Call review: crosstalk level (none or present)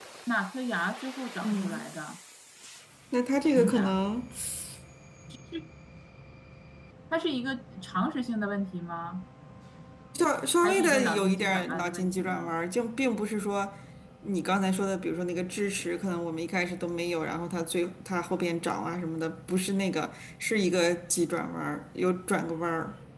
present